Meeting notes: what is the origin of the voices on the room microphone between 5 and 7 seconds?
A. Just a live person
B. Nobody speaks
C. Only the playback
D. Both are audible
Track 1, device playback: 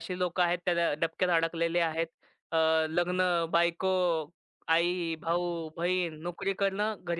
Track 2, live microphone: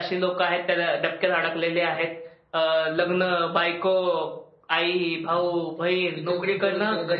D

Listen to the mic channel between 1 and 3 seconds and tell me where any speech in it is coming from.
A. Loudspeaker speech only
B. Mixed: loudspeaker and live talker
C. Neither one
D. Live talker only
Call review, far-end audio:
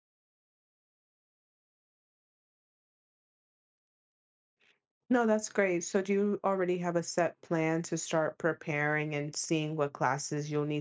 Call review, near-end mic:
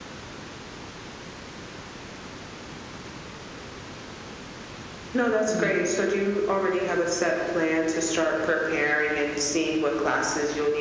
C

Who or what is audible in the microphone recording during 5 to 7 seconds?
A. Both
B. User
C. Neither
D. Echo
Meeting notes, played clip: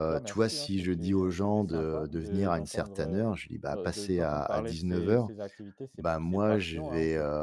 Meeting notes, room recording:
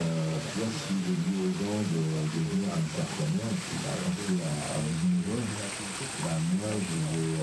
D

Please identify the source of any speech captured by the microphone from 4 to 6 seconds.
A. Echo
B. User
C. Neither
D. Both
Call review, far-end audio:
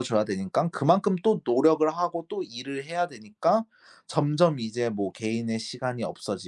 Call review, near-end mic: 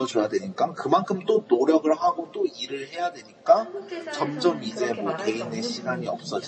D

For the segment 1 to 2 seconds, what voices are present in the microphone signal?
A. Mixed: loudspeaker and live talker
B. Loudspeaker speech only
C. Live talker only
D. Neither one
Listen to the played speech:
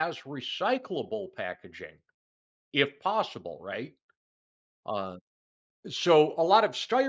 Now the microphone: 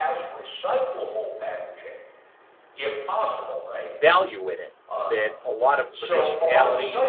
B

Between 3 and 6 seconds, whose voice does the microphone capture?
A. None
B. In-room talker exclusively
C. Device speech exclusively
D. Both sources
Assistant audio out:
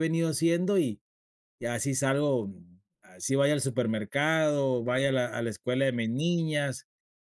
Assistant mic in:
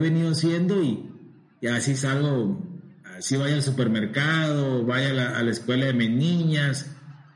C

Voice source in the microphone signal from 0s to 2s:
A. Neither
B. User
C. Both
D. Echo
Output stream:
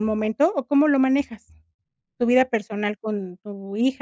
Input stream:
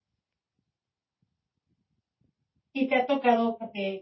A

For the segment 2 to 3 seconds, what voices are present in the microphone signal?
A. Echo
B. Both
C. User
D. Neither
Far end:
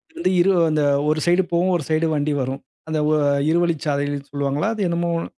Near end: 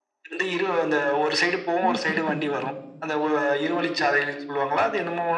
B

